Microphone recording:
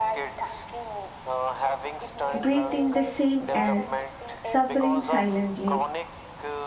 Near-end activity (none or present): present